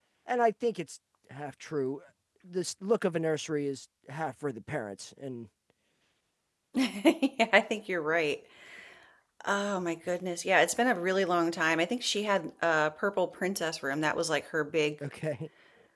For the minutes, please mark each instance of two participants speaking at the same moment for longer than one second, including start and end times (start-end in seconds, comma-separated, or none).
none